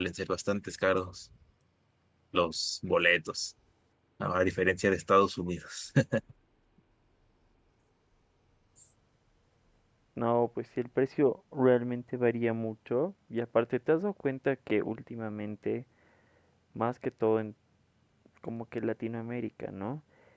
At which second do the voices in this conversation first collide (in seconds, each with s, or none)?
none